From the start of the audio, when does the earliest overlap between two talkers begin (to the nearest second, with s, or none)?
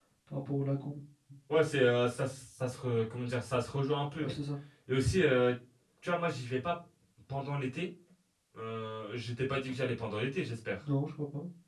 none